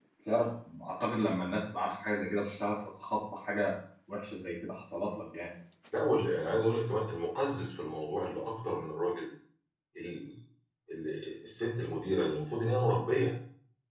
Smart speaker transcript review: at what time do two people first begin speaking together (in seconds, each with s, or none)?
none